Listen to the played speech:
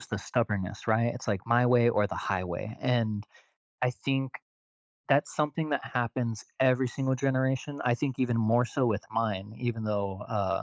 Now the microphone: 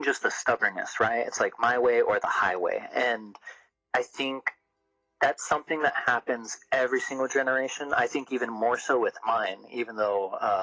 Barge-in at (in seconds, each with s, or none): none